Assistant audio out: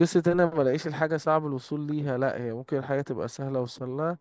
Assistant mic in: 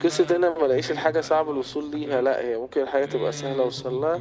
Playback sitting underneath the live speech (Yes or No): No